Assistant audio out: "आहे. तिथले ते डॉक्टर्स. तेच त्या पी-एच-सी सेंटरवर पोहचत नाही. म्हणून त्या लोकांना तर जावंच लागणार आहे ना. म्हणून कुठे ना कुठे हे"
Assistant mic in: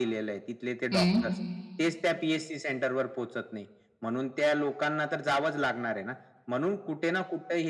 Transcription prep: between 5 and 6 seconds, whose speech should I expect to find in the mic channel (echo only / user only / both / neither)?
echo only